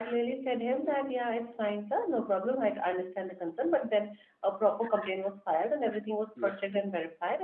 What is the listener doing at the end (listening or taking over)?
listening